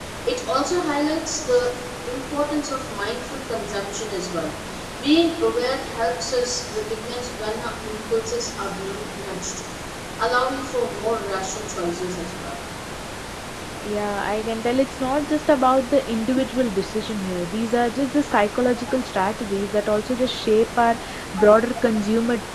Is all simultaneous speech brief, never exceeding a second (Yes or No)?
Yes